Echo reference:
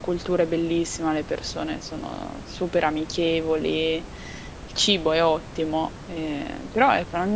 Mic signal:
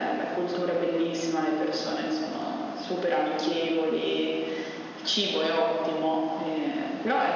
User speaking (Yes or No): No